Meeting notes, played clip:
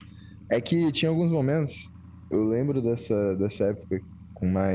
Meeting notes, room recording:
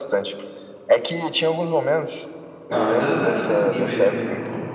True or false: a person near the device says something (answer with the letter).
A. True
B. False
A